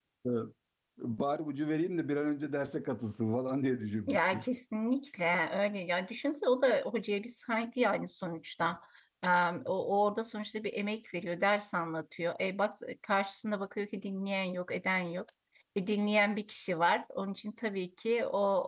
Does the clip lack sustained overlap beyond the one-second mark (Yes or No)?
Yes